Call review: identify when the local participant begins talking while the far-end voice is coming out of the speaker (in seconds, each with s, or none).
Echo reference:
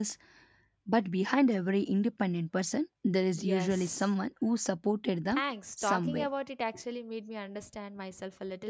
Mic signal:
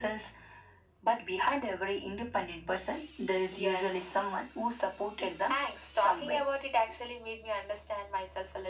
none